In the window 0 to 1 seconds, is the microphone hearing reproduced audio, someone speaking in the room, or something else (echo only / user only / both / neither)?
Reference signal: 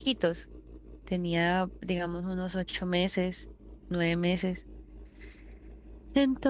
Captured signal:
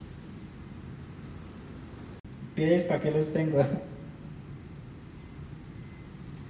neither